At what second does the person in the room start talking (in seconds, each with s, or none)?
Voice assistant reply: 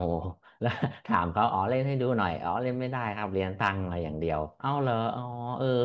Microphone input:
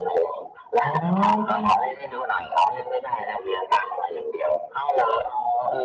0.8 s